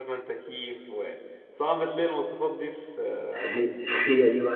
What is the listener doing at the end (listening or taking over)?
taking over